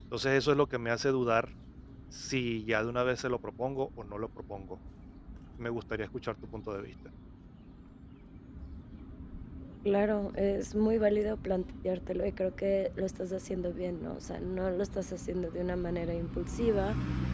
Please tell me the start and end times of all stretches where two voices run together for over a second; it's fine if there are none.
none

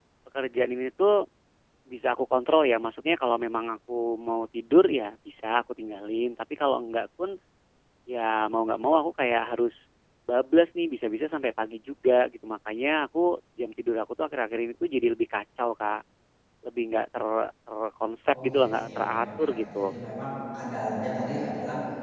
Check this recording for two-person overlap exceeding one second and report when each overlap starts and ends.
18.3-19.8

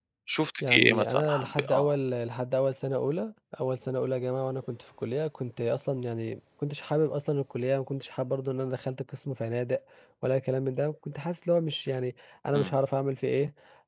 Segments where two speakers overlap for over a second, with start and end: 0.6-1.9

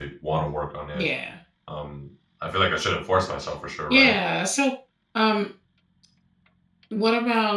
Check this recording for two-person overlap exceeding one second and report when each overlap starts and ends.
none

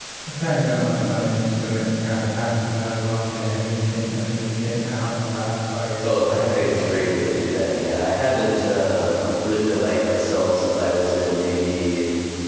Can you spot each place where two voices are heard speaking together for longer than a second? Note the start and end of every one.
6.0-7.2

